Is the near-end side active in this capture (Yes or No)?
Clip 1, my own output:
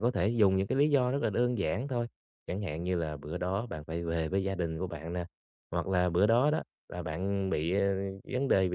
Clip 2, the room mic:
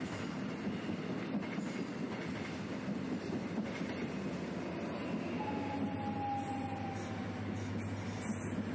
No